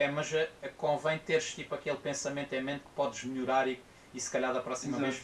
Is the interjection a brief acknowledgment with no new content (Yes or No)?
Yes